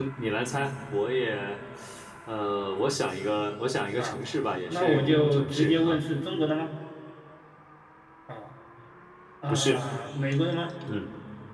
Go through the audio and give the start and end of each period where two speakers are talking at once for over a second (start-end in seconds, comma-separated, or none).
4.7-6.0